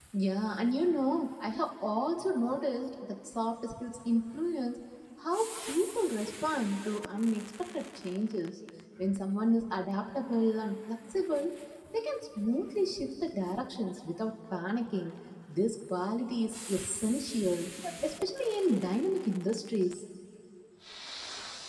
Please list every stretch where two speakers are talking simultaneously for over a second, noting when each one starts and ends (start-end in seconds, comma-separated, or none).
none